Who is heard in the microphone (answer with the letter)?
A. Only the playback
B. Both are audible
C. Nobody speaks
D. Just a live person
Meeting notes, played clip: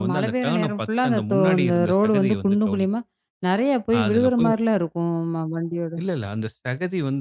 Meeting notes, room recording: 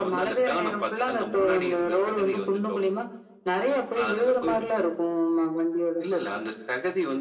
A